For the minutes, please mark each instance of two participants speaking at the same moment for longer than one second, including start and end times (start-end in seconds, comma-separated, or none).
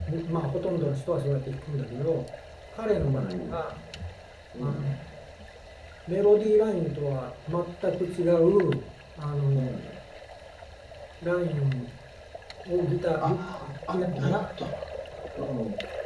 13.2-14.4